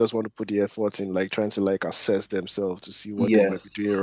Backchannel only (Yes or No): No